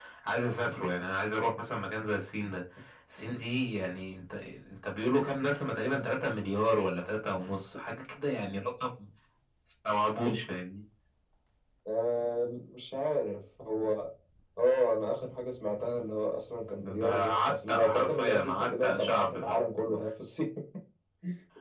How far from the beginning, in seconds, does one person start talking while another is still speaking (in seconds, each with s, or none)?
17.0 s